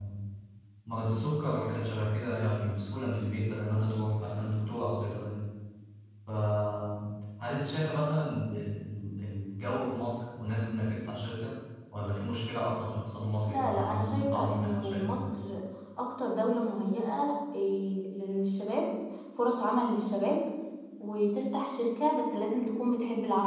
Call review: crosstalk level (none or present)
present